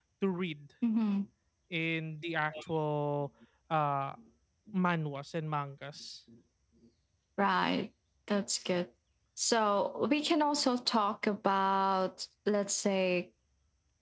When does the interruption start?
none

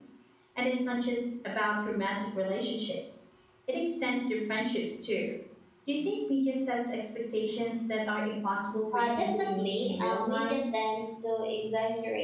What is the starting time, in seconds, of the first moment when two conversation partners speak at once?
8.9 s

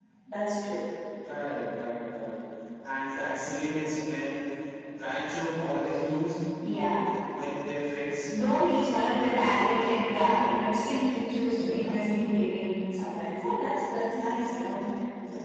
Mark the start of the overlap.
9.2 s

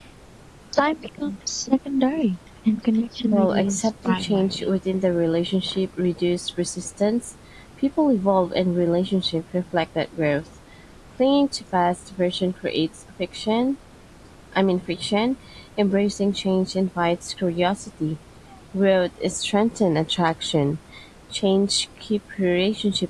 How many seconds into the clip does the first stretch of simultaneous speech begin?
3.3 s

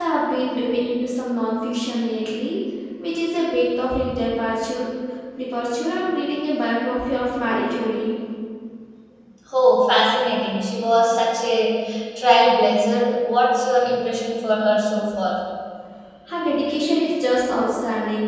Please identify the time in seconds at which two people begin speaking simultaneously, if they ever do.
none

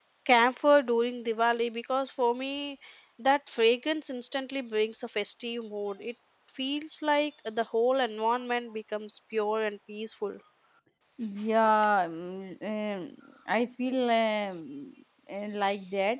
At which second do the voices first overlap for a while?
none

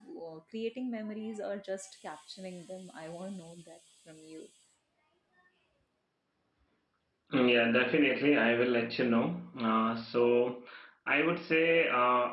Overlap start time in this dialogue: none

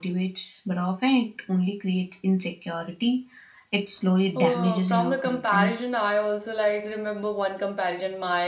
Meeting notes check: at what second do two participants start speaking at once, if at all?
4.3 s

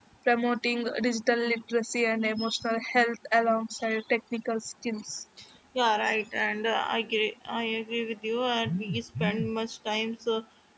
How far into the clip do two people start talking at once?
none

